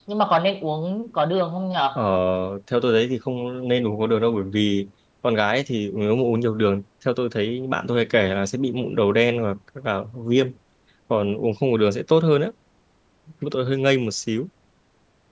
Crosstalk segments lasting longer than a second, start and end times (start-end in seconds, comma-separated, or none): none